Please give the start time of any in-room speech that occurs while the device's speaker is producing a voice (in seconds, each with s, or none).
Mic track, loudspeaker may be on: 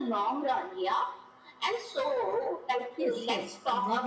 3.0 s